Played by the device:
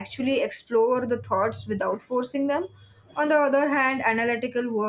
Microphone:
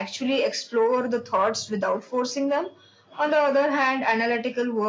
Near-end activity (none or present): none